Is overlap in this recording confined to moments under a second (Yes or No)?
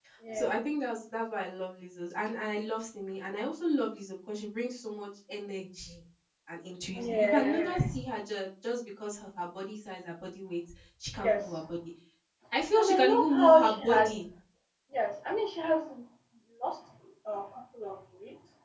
No